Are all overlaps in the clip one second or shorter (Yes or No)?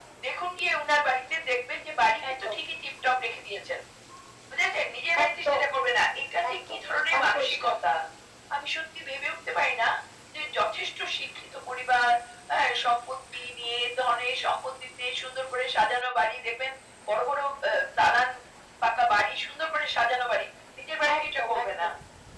No